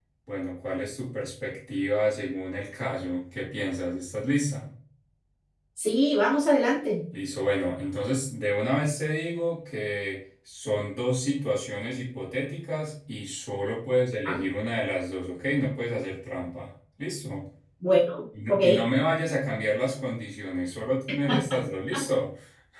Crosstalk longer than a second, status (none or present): none